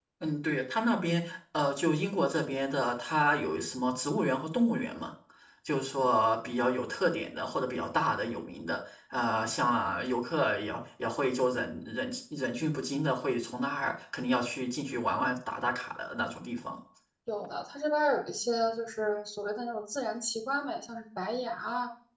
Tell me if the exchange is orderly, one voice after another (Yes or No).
Yes